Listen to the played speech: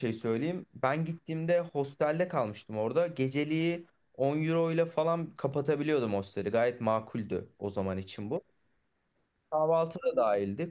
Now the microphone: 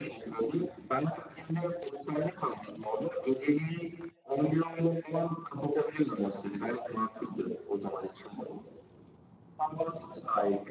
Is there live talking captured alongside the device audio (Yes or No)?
No